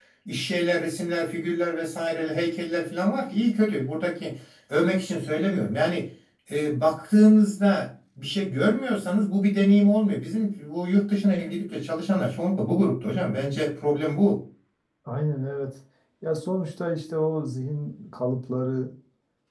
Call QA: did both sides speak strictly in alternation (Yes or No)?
Yes